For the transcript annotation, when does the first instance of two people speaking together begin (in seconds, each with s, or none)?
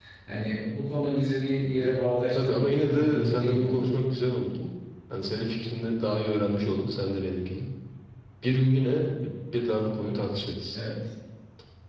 2.3 s